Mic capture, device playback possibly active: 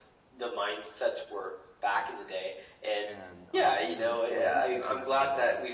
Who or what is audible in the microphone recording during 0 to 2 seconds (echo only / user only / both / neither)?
echo only